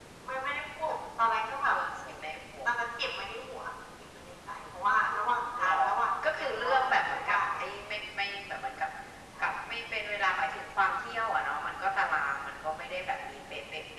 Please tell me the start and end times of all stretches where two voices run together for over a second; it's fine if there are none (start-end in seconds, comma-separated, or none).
6.2-7.6